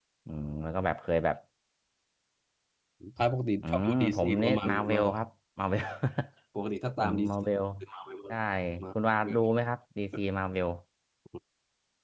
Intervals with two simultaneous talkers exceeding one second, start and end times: 3.6-5.2

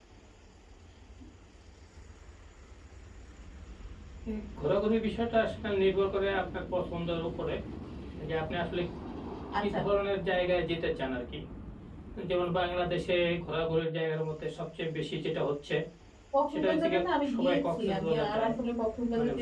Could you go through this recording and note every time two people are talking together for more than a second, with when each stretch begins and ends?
16.5-18.5

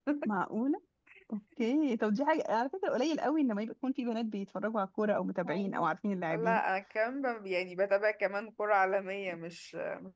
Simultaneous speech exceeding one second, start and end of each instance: none

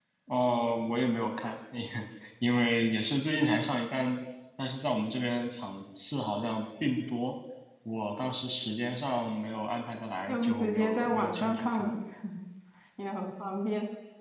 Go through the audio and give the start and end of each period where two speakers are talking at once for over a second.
10.3-11.9

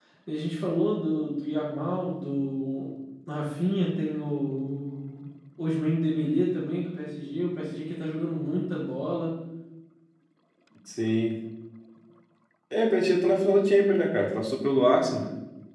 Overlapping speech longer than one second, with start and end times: none

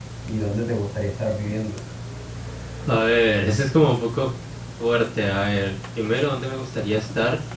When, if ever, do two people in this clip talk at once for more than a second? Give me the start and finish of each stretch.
none

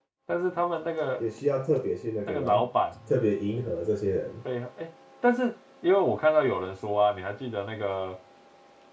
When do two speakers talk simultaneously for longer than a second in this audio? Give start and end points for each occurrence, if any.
none

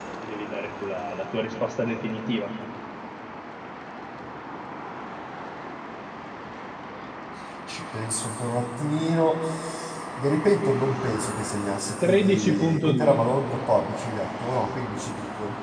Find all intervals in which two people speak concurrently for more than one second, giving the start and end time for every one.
12.0-13.2

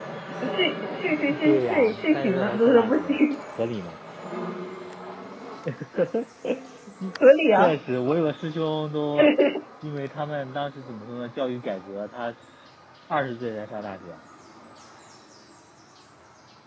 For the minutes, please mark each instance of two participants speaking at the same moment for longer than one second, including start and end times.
1.4-3.2

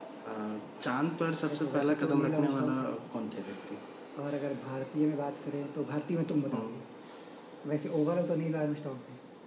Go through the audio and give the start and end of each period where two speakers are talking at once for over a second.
1.5-2.8

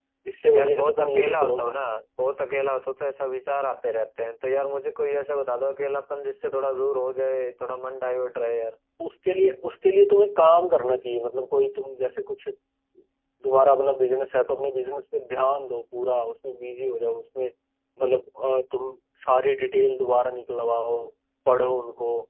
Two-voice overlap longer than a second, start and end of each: 0.6-1.8

